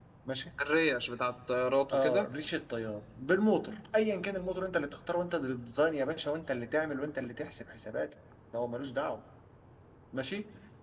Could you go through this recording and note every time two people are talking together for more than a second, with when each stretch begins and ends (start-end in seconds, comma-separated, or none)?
none